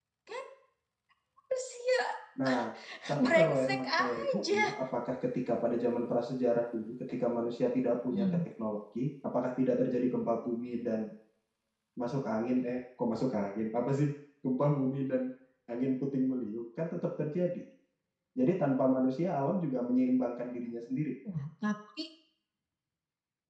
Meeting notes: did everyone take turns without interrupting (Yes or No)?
No